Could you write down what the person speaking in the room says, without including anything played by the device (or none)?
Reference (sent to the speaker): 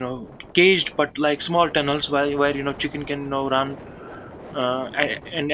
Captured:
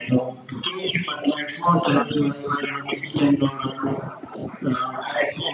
Yes,